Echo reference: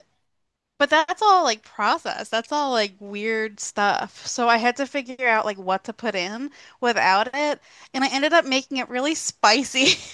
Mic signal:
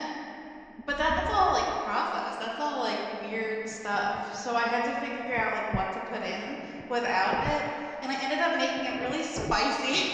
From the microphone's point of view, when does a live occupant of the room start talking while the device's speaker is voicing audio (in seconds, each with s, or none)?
none